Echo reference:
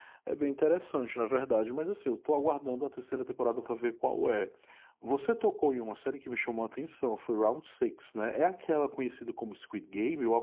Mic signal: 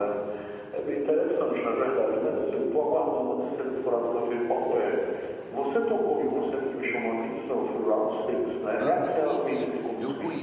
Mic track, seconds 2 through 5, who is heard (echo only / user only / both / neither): echo only